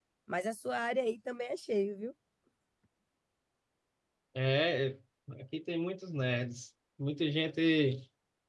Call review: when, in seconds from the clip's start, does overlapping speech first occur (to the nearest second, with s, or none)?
none